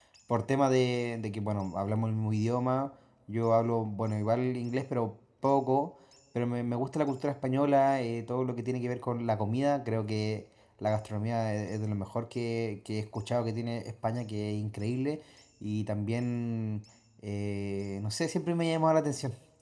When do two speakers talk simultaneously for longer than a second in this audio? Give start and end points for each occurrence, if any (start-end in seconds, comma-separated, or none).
none